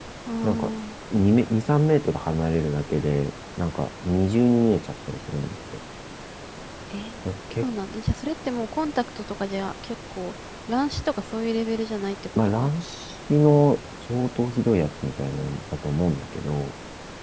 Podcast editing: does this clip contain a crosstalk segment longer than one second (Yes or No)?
No